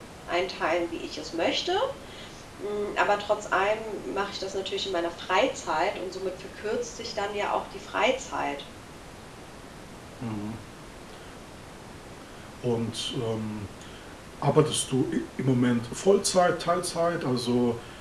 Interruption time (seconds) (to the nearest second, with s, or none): none